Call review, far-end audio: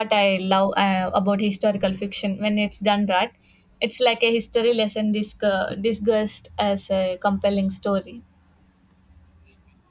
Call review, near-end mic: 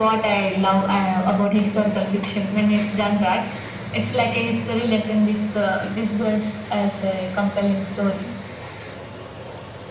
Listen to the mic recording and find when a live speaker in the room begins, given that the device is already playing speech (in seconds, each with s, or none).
none